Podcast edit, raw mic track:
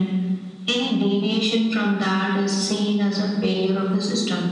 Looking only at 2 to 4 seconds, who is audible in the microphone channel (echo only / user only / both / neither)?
echo only